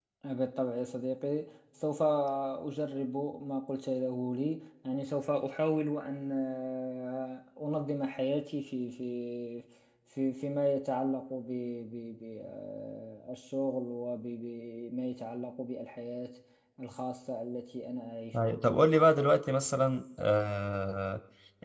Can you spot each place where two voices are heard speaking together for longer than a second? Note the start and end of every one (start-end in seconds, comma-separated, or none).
none